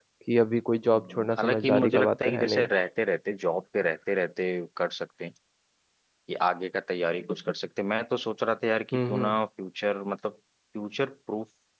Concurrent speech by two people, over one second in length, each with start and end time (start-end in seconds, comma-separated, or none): 1.0-2.7